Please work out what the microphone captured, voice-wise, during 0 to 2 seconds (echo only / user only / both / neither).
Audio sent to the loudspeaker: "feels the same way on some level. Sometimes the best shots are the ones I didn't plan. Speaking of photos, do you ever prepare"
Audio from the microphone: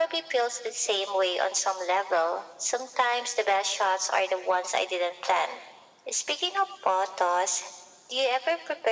echo only